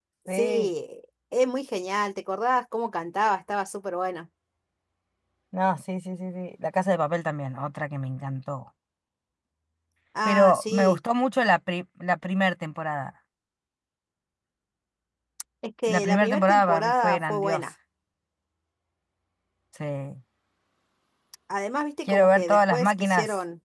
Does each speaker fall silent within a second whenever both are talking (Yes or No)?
No